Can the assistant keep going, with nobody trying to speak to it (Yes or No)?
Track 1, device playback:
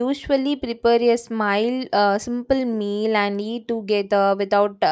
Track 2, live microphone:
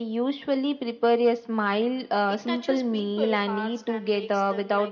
No